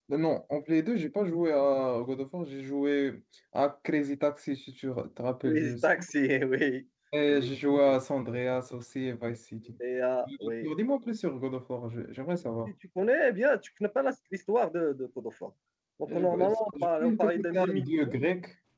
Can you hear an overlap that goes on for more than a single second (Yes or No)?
Yes